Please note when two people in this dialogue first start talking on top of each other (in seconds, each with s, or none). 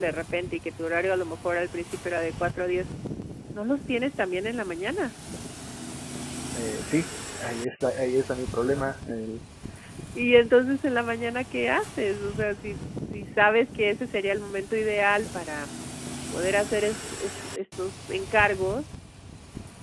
none